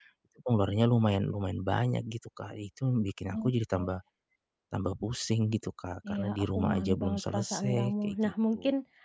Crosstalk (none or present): present